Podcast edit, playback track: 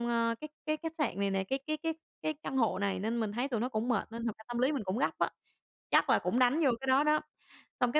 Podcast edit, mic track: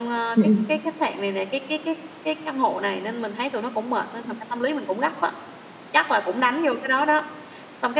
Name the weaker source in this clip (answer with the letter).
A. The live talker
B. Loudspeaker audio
B